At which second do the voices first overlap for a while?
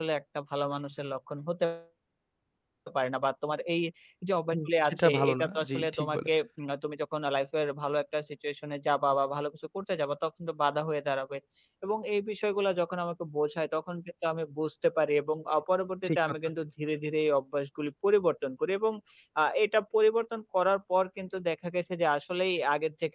4.5 s

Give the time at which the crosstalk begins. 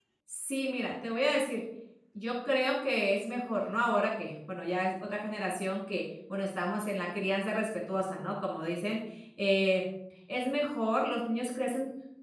none

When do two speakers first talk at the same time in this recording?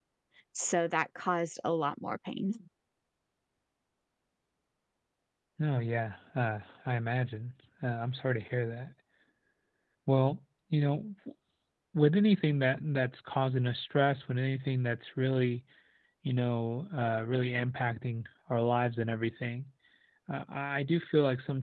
none

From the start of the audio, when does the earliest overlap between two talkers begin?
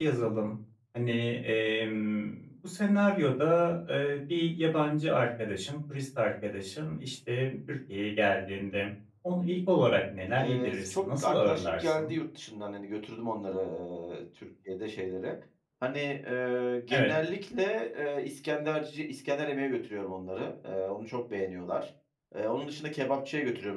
10.4 s

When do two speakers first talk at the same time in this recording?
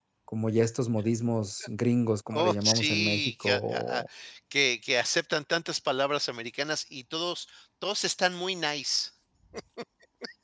2.3 s

